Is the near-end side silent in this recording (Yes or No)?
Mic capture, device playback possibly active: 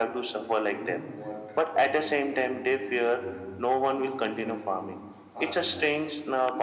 No